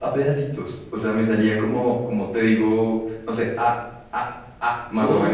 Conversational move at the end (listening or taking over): taking over